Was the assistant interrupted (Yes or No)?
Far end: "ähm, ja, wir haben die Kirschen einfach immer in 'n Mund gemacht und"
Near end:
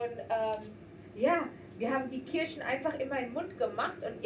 No